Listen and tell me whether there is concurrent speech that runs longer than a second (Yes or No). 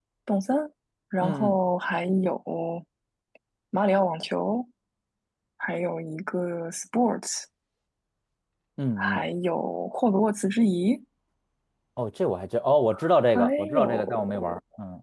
Yes